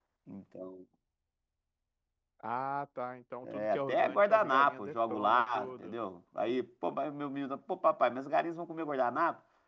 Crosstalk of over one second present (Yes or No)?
Yes